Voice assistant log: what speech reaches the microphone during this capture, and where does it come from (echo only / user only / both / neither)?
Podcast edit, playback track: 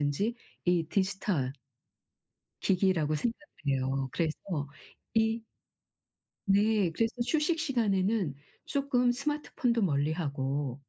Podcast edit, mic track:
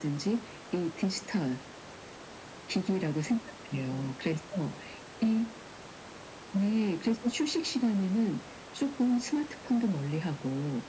echo only